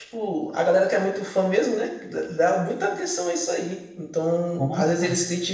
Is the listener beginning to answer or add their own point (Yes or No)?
No